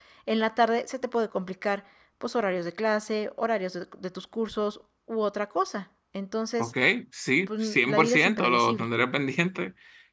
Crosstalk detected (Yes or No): Yes